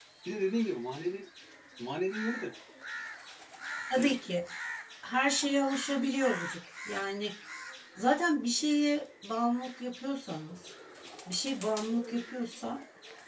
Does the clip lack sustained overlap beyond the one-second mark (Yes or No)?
Yes